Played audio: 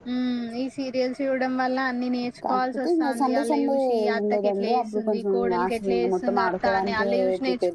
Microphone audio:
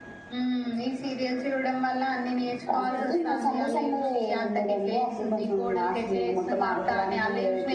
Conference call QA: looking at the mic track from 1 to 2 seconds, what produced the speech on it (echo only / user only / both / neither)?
echo only